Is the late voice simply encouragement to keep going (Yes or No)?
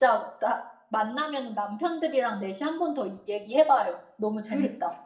No